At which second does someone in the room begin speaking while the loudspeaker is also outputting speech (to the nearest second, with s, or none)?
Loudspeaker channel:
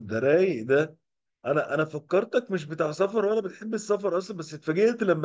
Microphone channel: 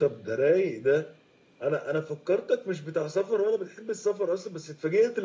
none